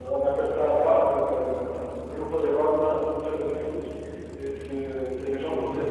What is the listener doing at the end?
listening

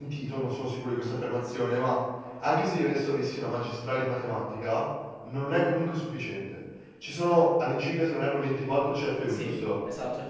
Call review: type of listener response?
taking over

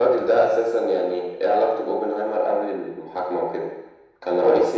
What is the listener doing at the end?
taking over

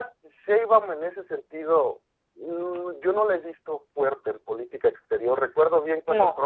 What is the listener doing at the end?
listening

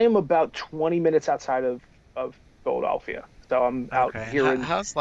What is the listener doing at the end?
taking over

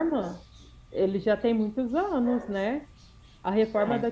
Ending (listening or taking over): listening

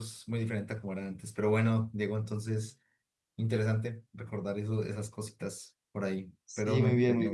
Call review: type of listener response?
taking over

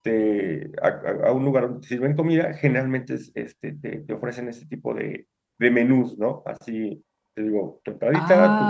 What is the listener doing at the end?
taking over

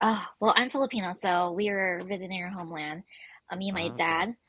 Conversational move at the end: listening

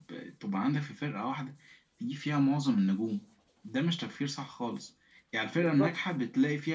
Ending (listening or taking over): listening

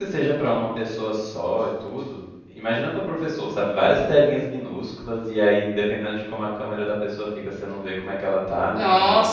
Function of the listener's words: taking over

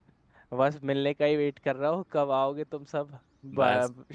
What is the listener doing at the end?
taking over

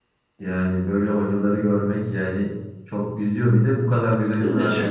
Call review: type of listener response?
listening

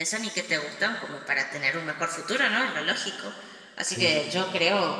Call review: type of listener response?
listening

